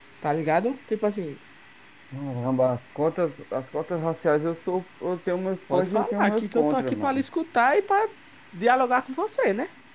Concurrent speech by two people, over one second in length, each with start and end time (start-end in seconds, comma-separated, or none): 5.7-7.2